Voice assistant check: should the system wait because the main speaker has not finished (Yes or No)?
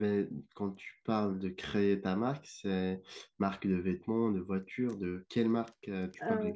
No